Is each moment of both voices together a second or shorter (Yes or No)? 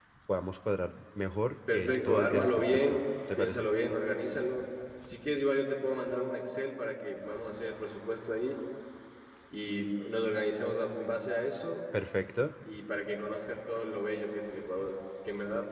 No